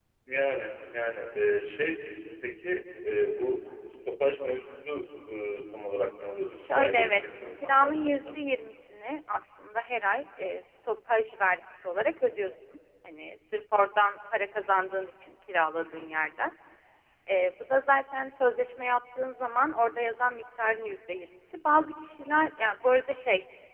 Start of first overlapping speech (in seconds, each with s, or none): 6.5 s